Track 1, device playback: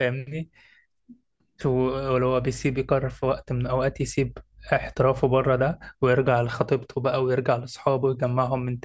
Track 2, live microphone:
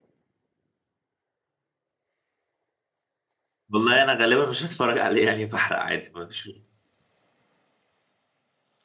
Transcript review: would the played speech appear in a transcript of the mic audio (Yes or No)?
No